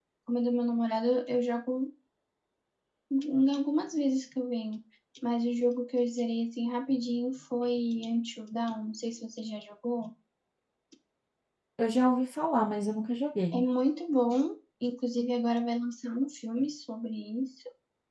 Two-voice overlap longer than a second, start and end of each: none

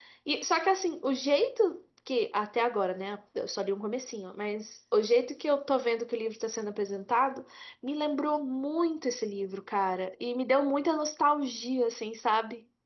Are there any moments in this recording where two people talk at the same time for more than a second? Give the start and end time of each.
none

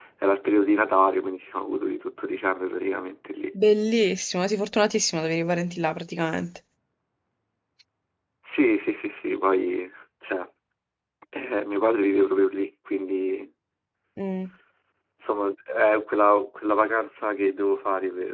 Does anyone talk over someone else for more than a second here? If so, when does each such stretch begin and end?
none

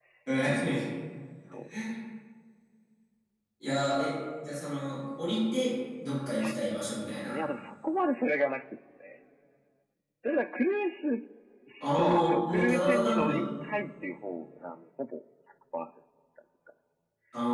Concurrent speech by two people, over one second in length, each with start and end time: 11.9-13.4

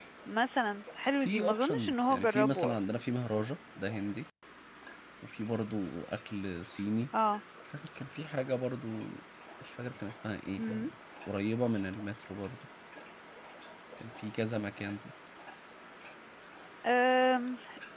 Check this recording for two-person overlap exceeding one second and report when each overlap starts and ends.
1.2-3.0

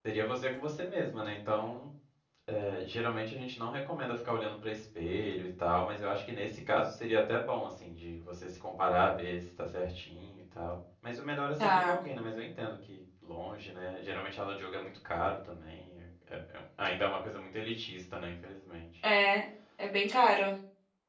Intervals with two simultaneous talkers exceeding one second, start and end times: none

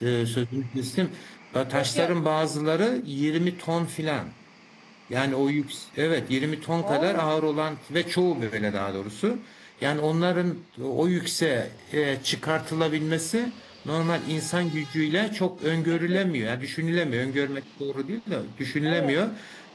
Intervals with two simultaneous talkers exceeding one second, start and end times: none

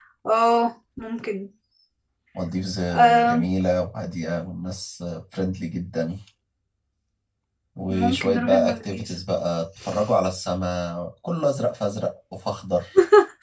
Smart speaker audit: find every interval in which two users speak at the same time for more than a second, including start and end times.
7.9-9.1

